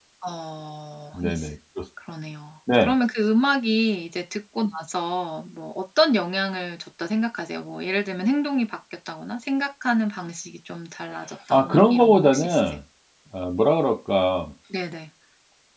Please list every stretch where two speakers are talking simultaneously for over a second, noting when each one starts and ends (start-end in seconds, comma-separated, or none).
11.5-12.8